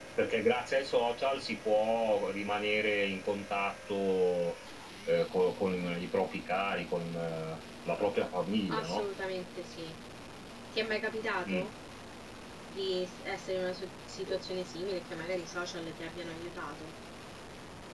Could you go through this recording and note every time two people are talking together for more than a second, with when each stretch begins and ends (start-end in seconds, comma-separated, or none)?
none